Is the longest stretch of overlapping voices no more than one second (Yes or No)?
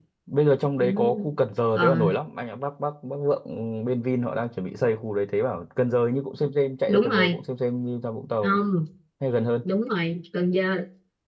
Yes